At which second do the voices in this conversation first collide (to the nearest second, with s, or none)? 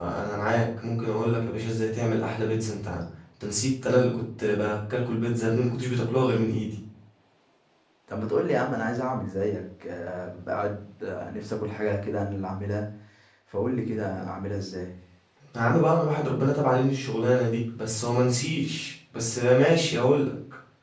none